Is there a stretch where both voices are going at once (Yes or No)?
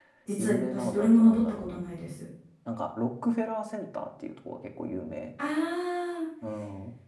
Yes